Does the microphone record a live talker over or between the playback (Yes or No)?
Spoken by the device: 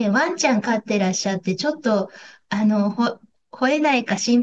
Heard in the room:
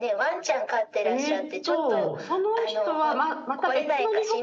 Yes